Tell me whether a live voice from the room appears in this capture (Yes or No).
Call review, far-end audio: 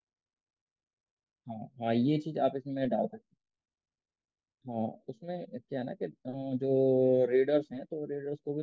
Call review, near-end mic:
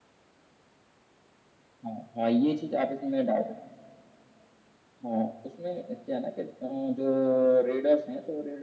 No